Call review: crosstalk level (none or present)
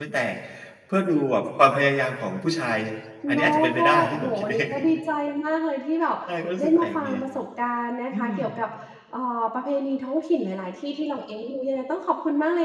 present